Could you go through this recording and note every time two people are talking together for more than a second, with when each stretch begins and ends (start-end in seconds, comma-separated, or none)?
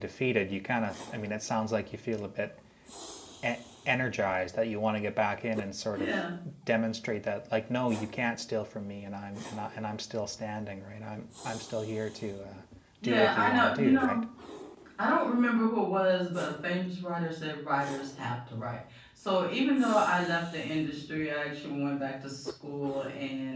13.0-14.2